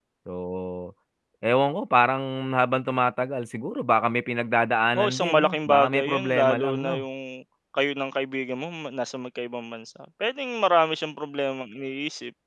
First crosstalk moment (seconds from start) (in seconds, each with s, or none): 4.9 s